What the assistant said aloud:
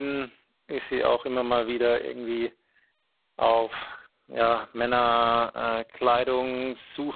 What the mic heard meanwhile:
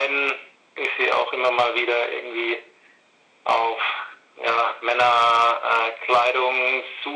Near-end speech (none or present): none